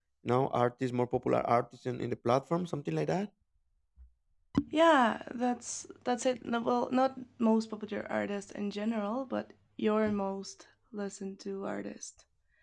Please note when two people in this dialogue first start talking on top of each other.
none

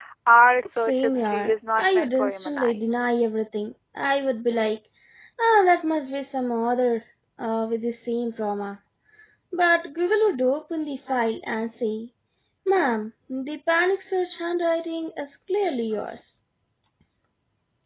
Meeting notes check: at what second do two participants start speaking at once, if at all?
0.7 s

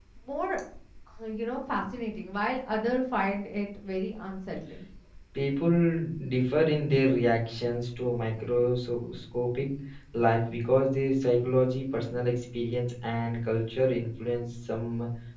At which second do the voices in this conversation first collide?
none

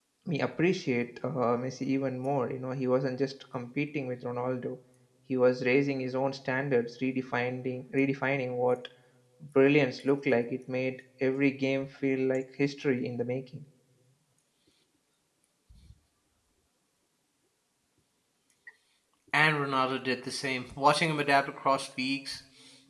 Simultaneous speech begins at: none

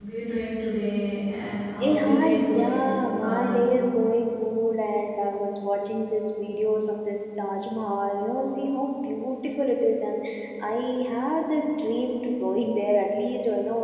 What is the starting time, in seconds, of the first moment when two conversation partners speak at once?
1.8 s

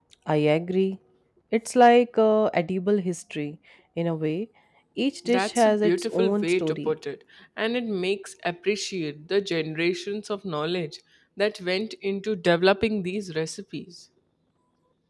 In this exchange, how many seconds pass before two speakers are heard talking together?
5.3 s

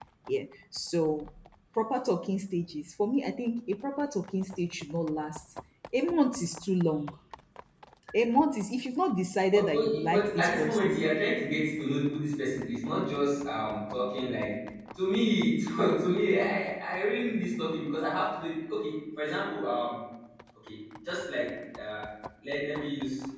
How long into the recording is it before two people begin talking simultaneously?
9.5 s

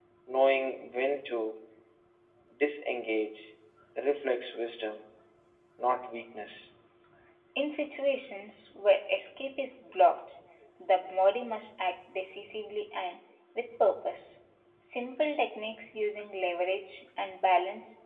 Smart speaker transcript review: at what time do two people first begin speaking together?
none

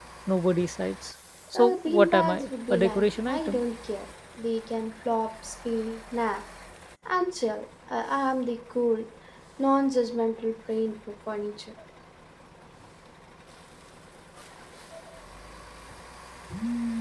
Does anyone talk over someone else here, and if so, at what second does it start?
1.6 s

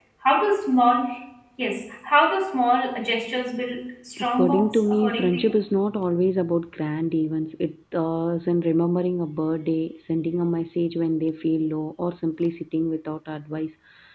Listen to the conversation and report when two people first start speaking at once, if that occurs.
4.4 s

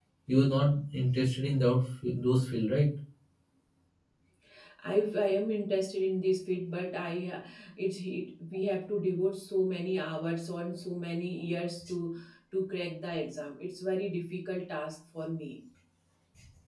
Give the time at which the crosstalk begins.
none

